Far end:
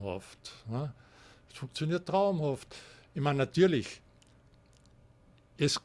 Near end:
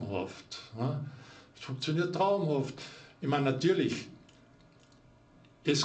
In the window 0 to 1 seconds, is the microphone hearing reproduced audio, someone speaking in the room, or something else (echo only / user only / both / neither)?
echo only